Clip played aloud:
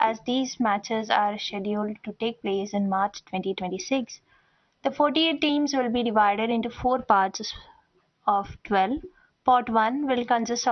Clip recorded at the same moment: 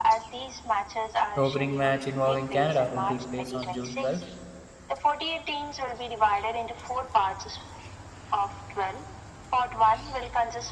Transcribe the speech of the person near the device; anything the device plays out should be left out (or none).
The opening match involving Canada will take place on June twelfth.